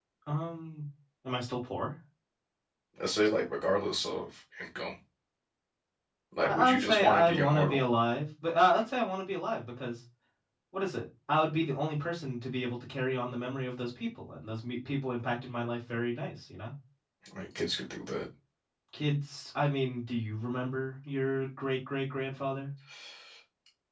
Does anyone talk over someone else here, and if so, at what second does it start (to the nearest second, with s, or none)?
6 s